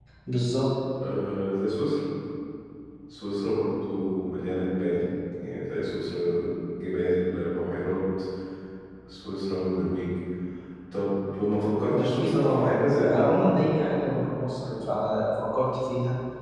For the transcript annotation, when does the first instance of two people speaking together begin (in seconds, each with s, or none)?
11.9 s